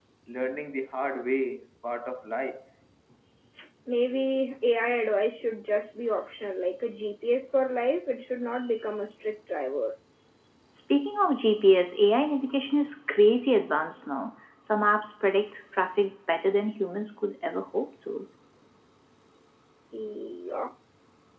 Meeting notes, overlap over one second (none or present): none